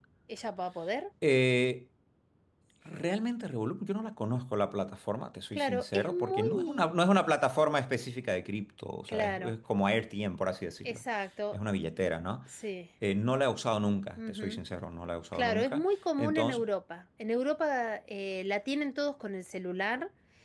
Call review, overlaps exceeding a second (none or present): present